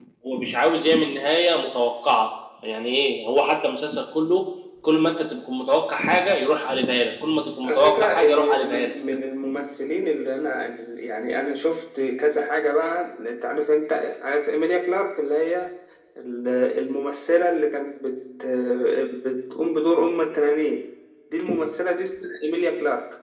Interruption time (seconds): 8 s

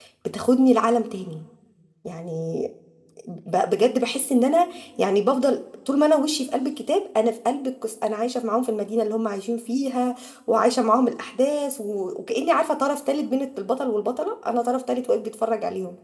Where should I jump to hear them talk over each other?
none

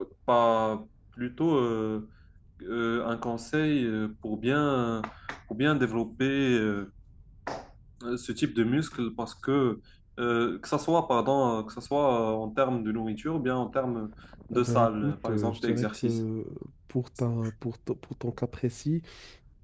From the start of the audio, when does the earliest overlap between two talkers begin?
15 s

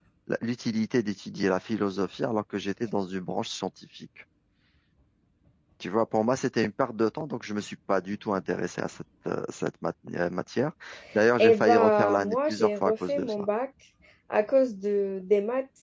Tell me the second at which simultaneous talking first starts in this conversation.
11 s

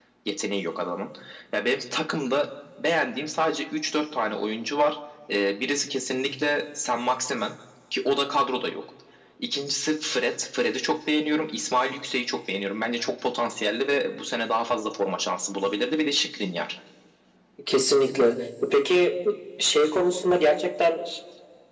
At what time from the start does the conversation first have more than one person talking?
none

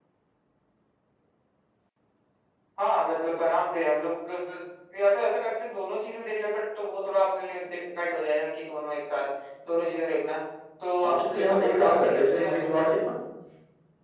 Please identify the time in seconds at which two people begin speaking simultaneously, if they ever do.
11 s

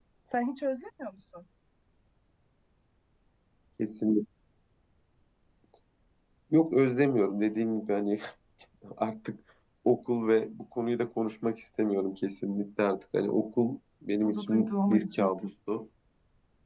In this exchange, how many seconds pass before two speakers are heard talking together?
14 s

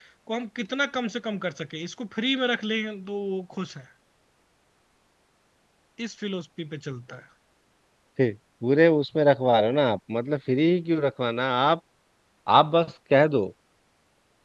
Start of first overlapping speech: none

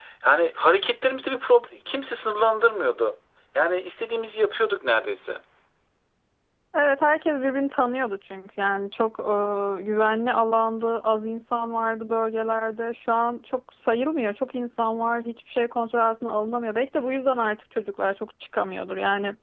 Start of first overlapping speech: none

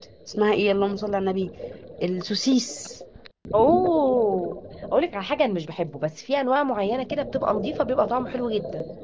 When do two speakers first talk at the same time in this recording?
none

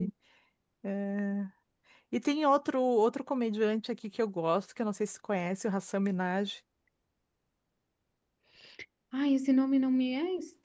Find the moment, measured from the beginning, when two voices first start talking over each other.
none

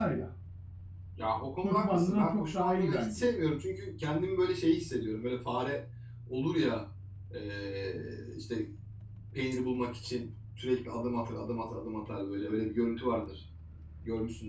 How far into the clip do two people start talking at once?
2 s

